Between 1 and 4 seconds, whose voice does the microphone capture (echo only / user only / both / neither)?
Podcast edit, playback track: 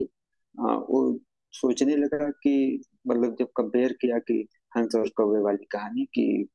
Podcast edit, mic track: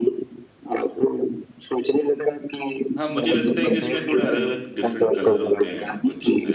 both